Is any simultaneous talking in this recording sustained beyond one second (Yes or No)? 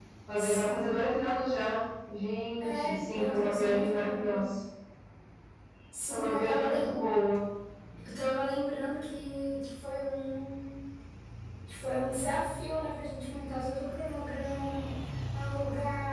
Yes